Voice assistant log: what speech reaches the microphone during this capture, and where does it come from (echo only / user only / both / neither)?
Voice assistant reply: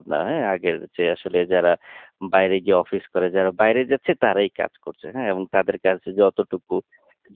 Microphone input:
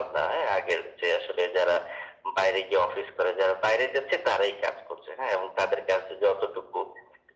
echo only